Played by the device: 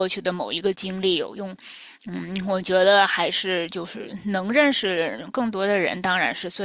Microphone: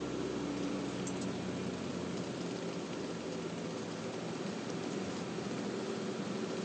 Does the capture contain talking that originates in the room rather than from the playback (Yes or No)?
No